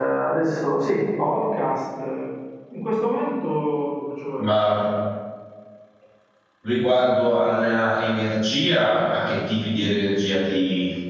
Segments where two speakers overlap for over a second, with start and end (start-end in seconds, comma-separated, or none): none